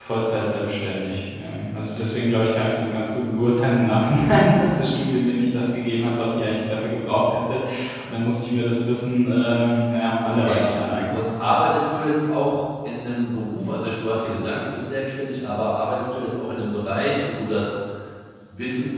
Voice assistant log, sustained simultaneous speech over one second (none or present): none